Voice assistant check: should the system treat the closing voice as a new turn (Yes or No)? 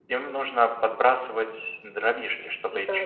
No